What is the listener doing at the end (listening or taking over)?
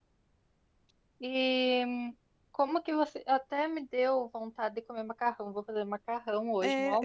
taking over